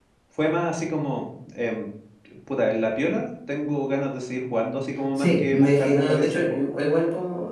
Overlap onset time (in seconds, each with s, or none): 5.2 s